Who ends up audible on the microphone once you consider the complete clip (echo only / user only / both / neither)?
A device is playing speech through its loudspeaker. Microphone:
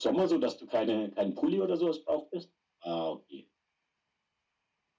echo only